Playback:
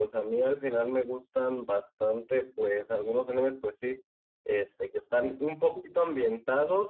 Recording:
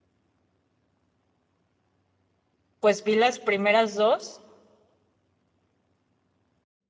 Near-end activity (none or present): present